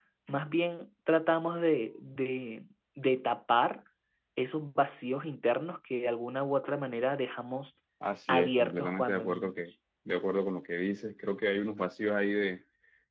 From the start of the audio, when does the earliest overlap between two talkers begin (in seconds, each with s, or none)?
8.3 s